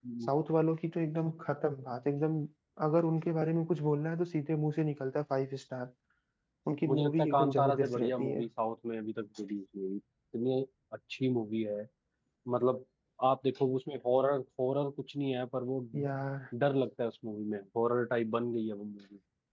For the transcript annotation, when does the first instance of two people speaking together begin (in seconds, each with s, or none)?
6.9 s